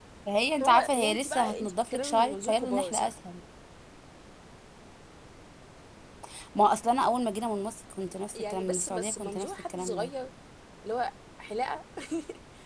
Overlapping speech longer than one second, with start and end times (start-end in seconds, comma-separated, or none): 0.6-3.1, 8.3-10.1